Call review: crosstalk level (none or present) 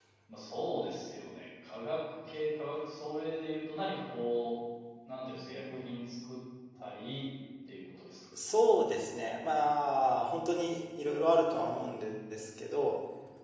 none